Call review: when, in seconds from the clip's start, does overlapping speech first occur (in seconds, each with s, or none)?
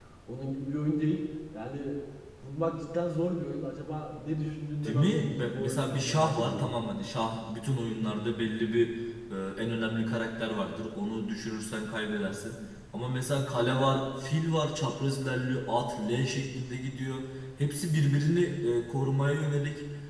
4.8 s